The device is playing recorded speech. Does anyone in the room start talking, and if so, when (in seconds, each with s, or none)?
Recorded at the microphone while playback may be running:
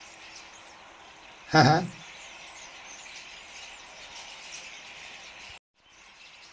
1.5 s